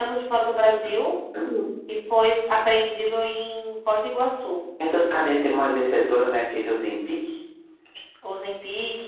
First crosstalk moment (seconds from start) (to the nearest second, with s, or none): none